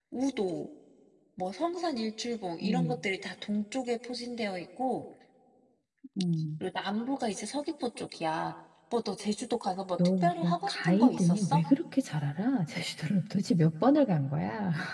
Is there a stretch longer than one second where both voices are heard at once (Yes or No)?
Yes